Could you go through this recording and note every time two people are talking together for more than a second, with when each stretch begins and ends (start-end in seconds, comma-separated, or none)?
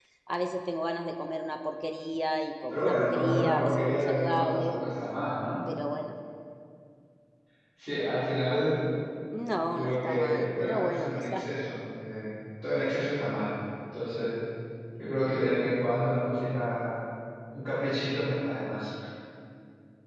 2.7-4.8, 9.7-11.4